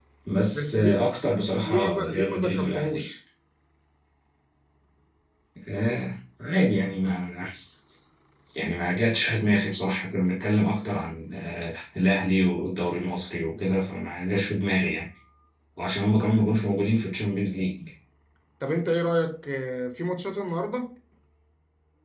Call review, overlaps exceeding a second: present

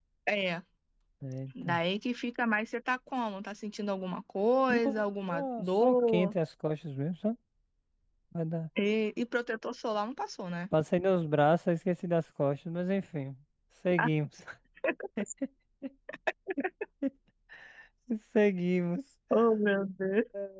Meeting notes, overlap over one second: present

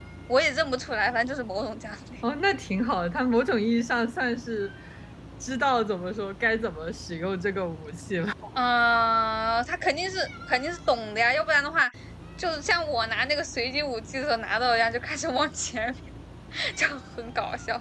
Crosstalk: none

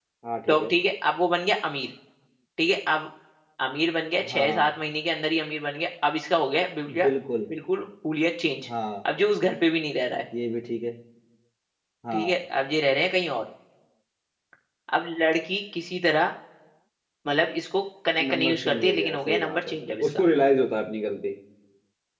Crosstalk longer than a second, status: present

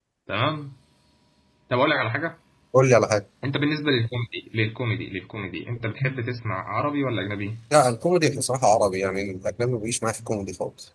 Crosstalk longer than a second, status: none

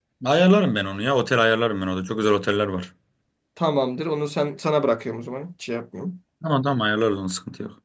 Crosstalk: none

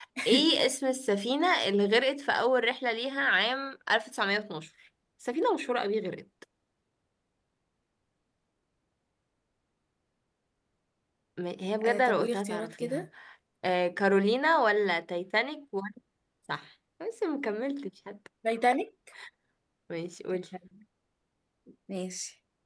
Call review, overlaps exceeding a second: present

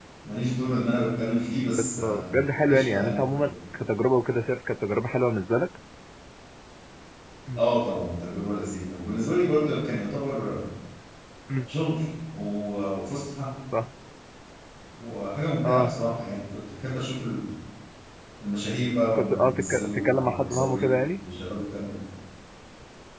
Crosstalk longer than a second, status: present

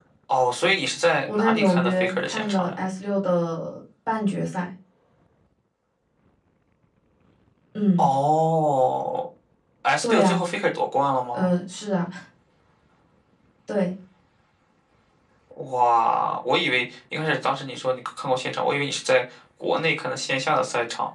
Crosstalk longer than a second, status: present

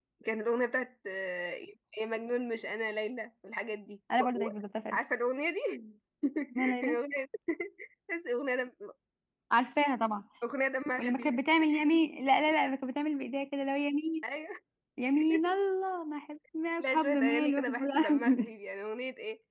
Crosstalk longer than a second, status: present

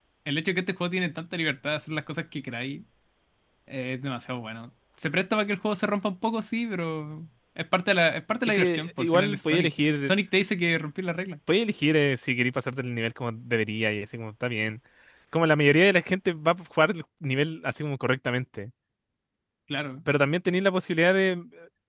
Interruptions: present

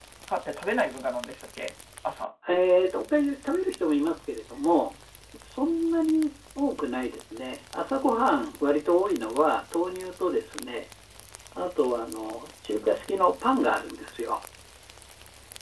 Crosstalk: none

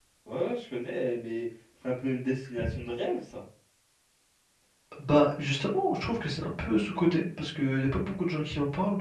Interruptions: none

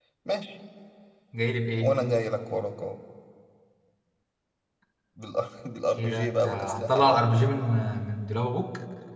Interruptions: present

